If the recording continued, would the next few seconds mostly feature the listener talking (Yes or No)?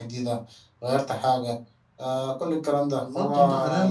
Yes